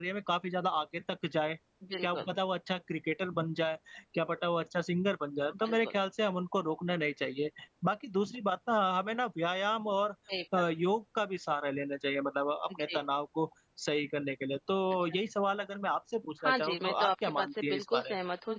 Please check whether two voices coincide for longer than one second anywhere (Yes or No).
Yes